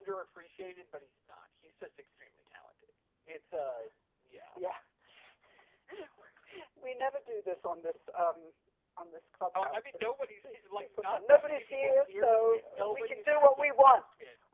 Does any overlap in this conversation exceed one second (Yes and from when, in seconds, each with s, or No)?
Yes, from 9.6 s